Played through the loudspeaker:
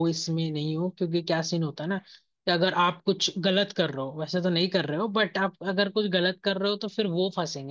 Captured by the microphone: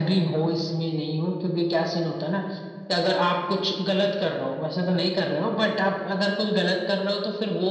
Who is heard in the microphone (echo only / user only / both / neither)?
echo only